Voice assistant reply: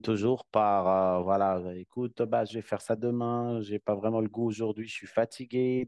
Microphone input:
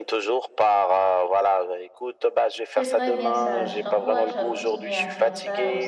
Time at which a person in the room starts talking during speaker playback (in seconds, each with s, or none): 2.7 s